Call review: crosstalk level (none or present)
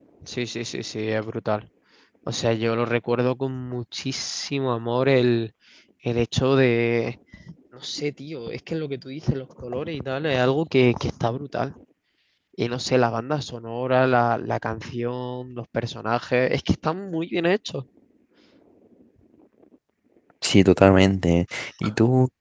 none